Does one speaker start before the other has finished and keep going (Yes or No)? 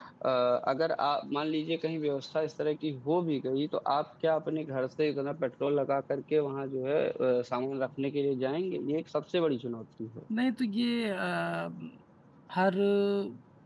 No